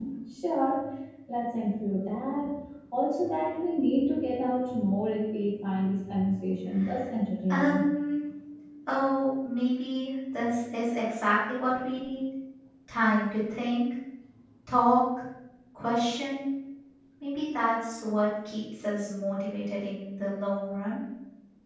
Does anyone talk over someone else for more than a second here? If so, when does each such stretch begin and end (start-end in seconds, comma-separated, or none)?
none